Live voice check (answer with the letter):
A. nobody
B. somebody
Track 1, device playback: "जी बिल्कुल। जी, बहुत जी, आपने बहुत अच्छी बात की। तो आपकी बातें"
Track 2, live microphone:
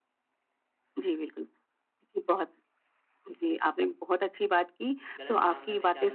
B